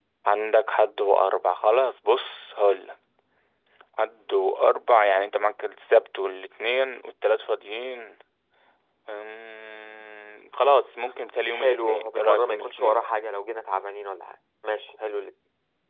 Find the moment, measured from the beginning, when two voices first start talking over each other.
11.5 s

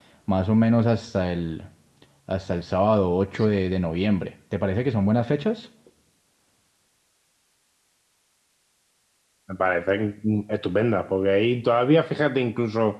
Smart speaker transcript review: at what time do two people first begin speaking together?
none

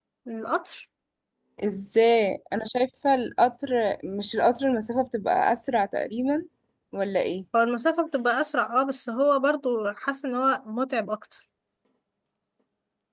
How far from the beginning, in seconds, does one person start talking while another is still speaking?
none

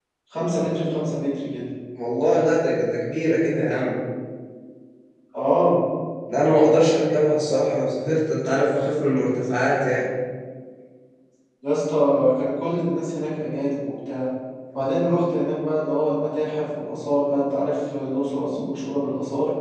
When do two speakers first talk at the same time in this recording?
none

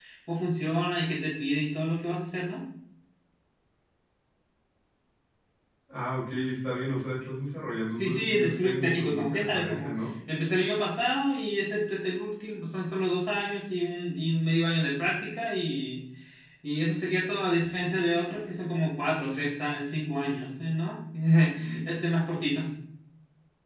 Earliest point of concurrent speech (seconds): 7.9 s

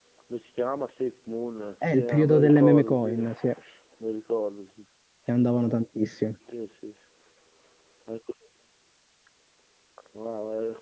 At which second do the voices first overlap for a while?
1.8 s

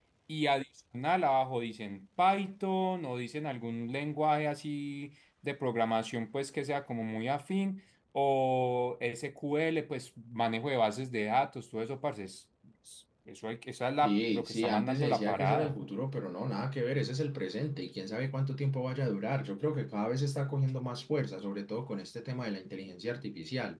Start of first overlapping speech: 14.0 s

